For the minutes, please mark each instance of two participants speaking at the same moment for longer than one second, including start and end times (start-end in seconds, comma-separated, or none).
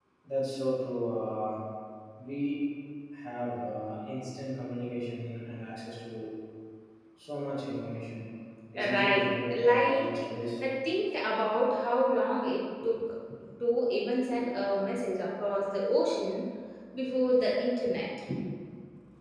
8.8-10.1